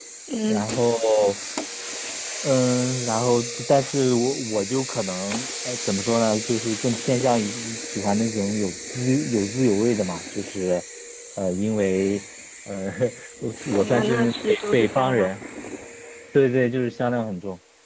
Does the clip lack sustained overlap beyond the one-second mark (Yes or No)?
No